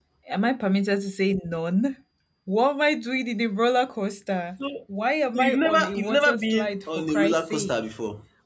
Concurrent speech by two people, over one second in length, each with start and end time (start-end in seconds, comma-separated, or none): 5.3-7.7